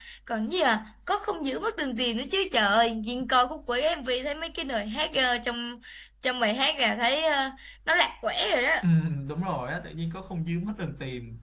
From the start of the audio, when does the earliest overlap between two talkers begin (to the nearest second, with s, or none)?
none